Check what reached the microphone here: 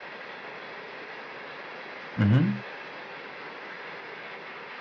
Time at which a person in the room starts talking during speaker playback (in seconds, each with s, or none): 2.2 s